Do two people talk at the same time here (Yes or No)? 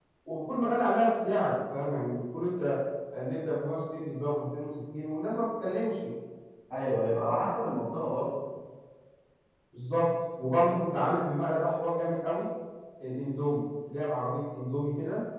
No